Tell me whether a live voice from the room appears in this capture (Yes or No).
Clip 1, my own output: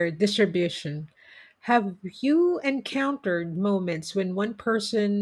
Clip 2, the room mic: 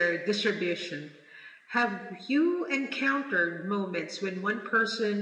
No